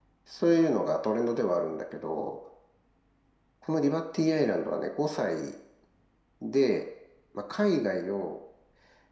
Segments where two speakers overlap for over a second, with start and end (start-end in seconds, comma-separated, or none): none